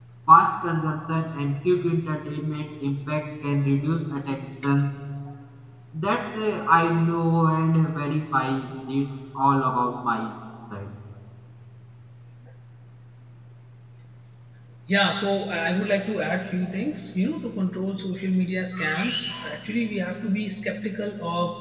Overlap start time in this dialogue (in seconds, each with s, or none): none